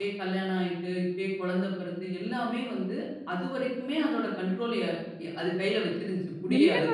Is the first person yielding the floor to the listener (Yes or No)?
Yes